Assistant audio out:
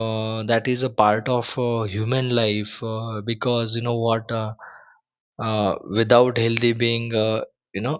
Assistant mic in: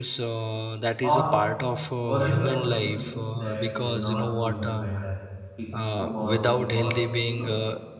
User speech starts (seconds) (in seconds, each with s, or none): 1.0 s